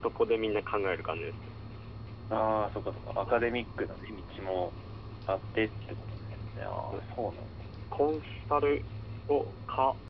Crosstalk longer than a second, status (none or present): none